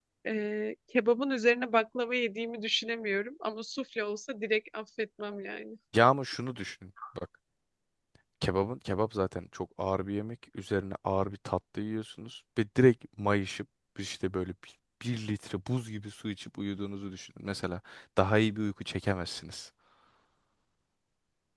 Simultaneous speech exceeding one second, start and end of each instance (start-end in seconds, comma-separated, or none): none